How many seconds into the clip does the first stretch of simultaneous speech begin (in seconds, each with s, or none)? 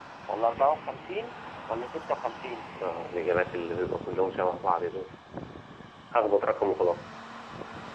none